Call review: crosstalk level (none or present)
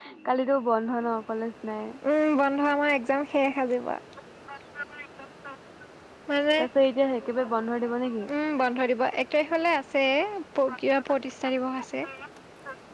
none